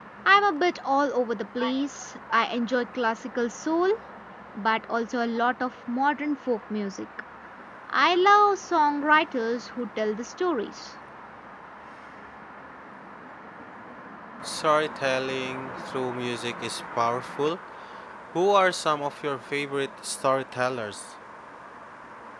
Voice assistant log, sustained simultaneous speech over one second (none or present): none